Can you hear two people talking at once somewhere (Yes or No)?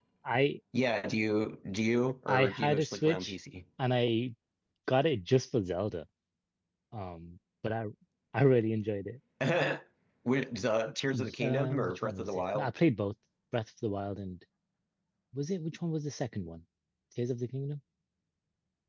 Yes